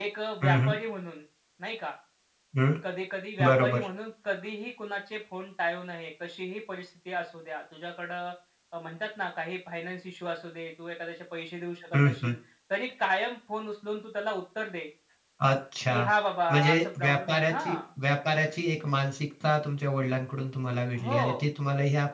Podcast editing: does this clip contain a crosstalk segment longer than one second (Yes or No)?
Yes